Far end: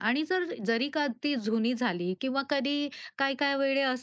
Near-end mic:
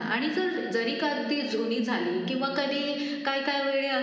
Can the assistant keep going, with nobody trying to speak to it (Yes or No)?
Yes